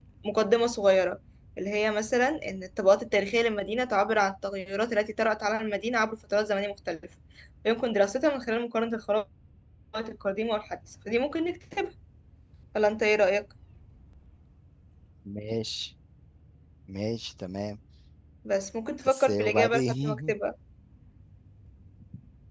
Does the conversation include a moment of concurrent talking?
Yes, from 19.1 s

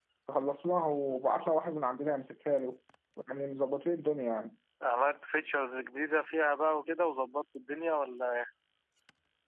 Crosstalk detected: No

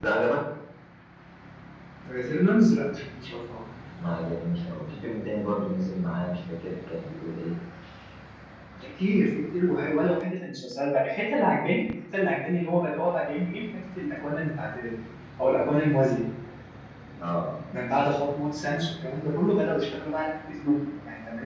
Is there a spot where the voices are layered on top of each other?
No

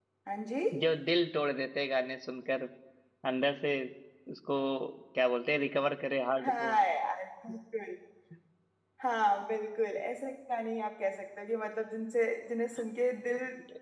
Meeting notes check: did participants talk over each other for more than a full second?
No

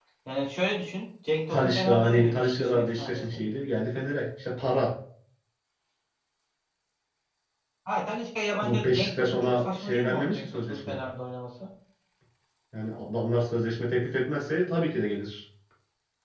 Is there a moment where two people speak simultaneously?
Yes, from 1.5 s

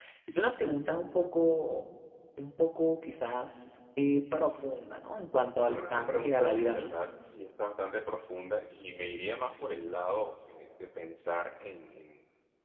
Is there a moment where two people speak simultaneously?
Yes, from 5.6 s

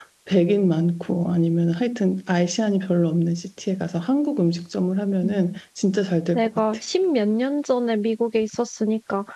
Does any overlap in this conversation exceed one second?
No

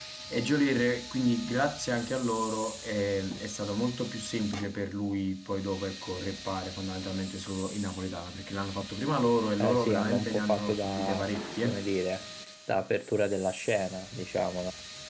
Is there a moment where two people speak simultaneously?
Yes, from 9.6 s

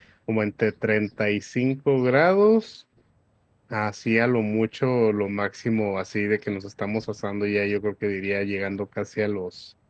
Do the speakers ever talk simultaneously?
No

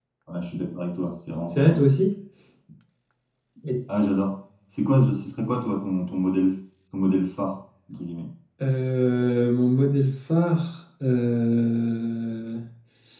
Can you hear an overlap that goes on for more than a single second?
No

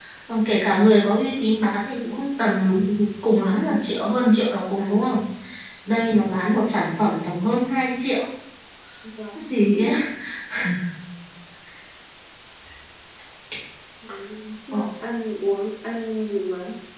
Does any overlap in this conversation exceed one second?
No

